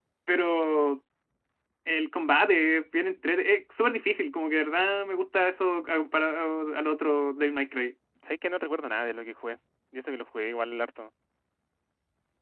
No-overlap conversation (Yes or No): Yes